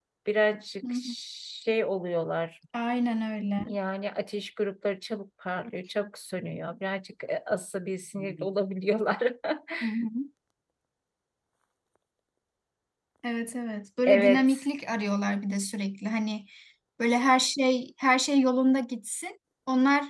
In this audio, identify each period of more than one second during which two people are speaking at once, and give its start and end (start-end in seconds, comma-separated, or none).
none